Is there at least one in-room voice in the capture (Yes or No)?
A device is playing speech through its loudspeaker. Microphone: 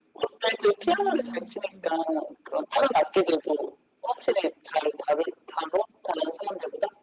Yes